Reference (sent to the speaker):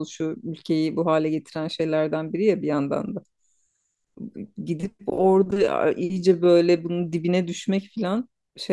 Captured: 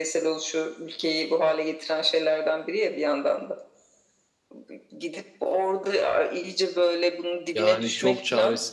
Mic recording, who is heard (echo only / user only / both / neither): both